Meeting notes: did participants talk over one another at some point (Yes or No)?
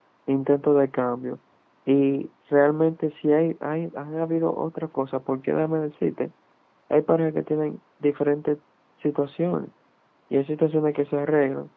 No